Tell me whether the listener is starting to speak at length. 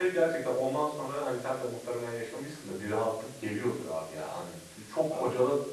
No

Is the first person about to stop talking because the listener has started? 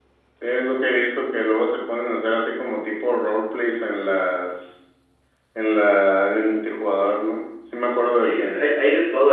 Yes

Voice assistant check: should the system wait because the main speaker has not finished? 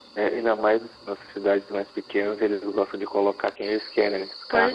No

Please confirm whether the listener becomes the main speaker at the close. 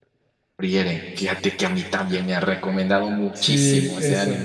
Yes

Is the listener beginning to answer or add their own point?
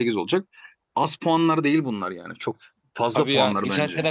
Yes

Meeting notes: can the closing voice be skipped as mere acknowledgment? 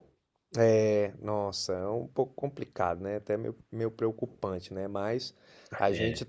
Yes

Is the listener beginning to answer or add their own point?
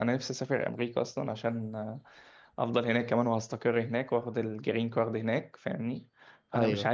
No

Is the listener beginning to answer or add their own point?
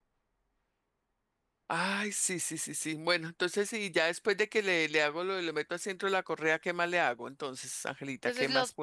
Yes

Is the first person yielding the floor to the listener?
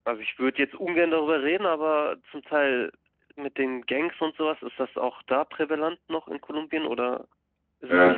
Yes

